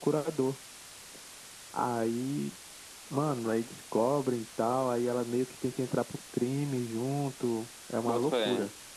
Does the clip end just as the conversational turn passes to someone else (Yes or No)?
Yes